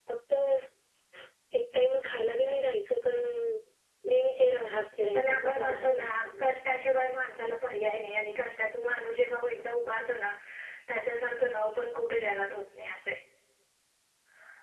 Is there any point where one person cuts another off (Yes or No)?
Yes